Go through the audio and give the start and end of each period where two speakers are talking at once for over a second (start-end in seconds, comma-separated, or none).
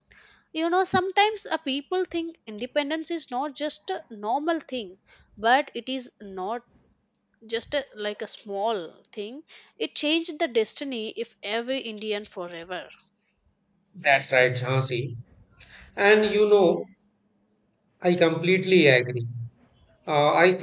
none